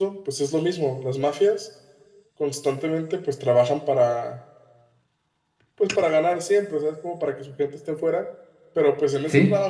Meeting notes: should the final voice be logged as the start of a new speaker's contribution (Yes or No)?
No